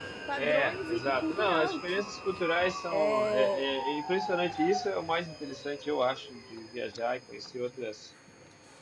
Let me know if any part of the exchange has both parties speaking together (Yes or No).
Yes